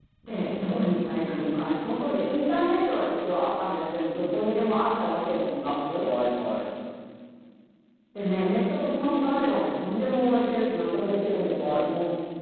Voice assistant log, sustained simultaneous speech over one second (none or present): none